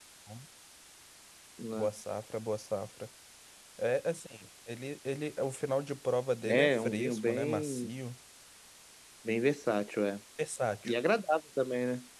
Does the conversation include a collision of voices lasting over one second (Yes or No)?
Yes